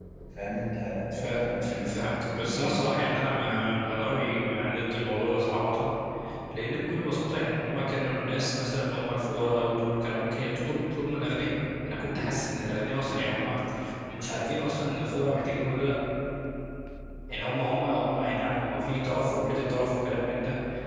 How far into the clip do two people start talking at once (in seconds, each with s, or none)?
1.1 s